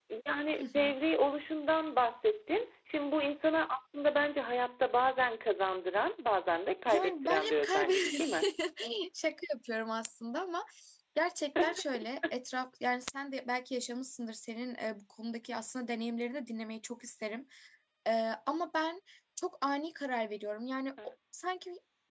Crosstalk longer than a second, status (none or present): present